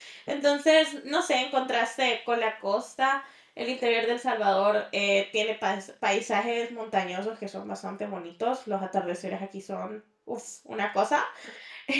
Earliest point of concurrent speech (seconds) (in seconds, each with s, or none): none